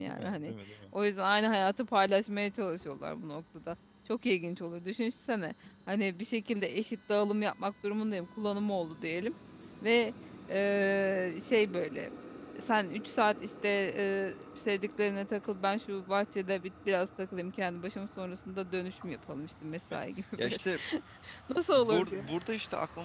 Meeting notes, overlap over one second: none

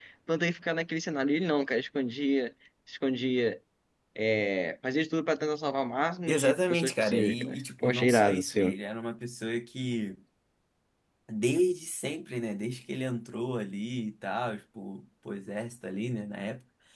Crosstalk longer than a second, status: present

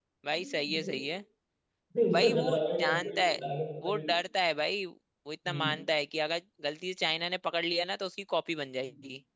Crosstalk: present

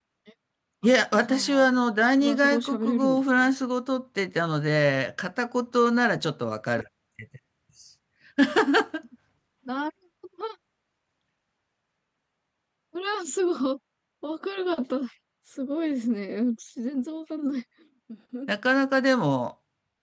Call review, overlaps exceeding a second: present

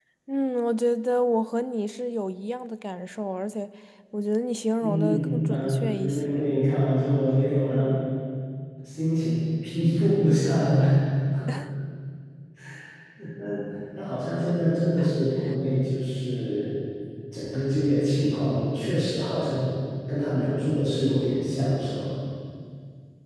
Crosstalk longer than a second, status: present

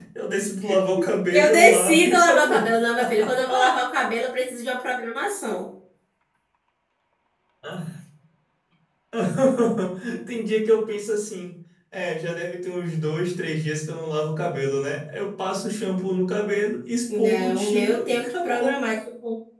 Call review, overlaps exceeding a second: present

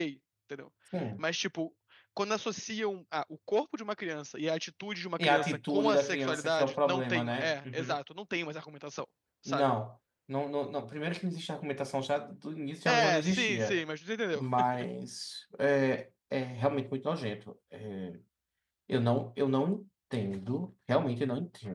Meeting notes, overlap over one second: present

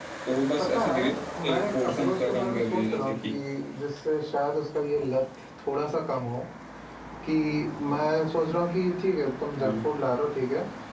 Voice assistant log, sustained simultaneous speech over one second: present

